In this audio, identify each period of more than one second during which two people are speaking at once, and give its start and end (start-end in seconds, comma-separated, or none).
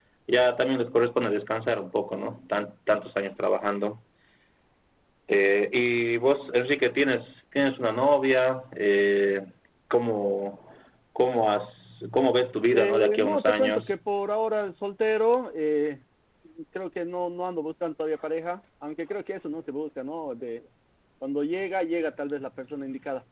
12.7-14.0